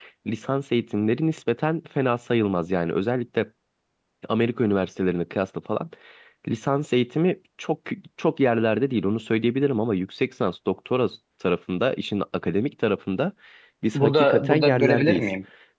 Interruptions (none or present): present